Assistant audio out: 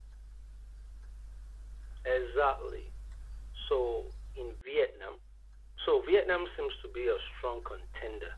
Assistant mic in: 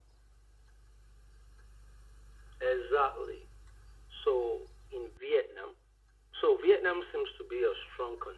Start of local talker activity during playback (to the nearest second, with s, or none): none